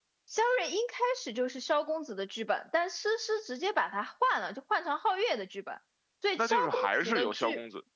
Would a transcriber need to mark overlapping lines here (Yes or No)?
Yes